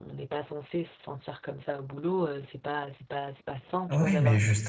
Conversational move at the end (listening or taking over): taking over